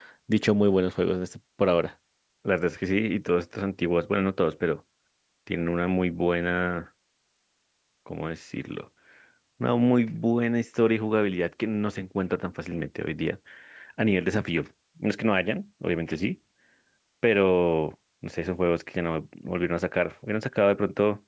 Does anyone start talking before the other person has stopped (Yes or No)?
No